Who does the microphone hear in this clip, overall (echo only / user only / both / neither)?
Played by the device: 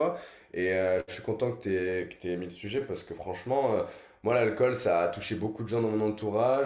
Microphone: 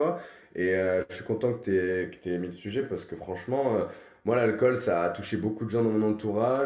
echo only